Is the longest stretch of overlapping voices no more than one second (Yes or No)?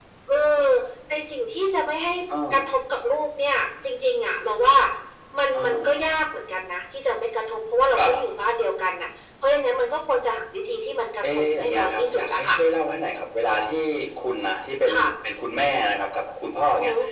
No